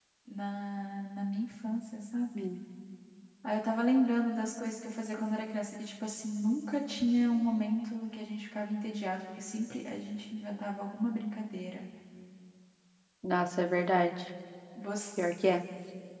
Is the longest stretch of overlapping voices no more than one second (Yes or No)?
Yes